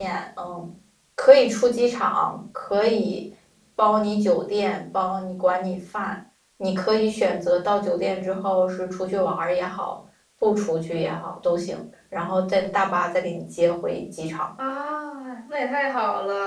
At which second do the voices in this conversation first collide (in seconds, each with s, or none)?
none